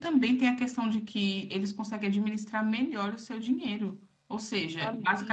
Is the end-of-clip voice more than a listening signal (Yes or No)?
No